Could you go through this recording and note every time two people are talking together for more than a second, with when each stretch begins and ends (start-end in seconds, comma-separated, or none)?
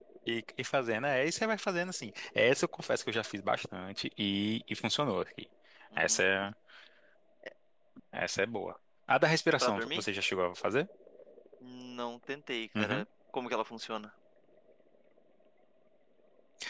none